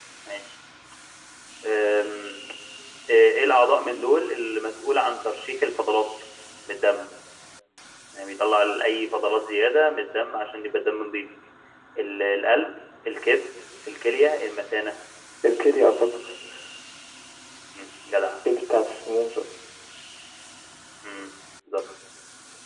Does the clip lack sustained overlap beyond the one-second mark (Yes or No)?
Yes